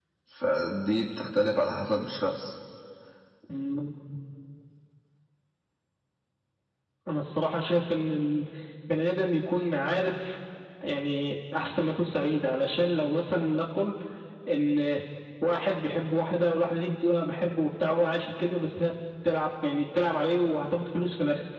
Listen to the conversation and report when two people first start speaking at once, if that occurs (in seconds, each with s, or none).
none